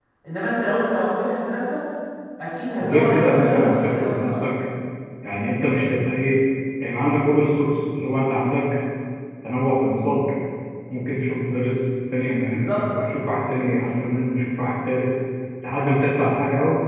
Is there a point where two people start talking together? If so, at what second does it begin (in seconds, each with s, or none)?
2.8 s